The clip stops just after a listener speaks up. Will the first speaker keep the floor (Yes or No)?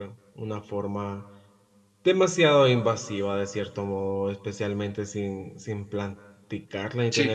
Yes